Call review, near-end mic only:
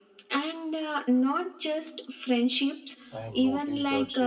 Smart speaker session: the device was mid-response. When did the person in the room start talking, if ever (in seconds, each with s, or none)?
3.1 s